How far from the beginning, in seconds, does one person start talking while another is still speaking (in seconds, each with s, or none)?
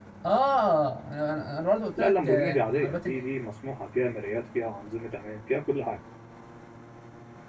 2.0 s